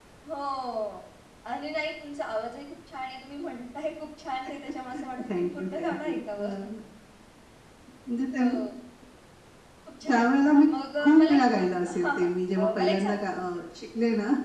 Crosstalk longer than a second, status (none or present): present